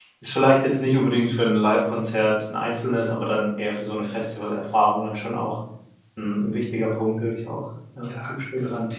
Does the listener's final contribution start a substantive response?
Yes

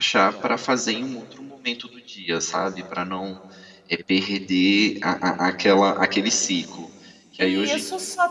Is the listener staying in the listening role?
No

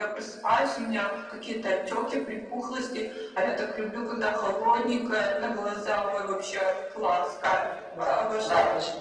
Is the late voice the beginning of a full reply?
Yes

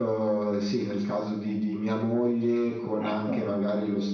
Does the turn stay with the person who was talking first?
Yes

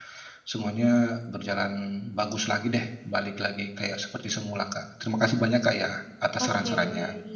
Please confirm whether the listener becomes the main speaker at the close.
Yes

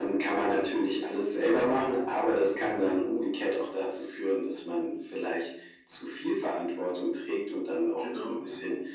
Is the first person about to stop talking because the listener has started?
No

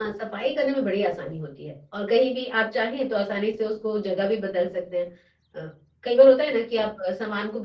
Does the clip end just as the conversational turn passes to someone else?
No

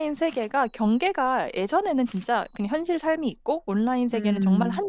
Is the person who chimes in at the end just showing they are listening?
Yes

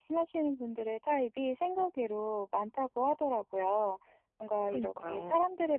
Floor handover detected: No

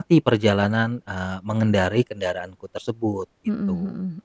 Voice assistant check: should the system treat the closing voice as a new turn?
Yes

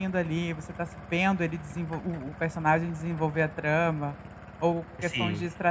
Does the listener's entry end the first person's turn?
No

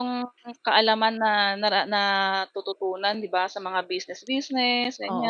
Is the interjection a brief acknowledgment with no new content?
No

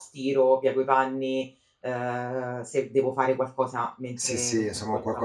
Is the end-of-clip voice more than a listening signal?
Yes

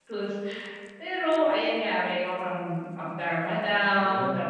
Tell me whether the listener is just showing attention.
Yes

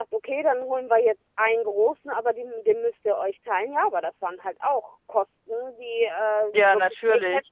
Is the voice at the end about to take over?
No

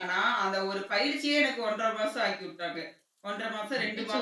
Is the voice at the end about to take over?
Yes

